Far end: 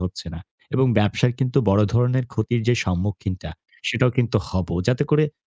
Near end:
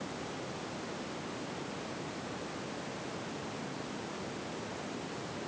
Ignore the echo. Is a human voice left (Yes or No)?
No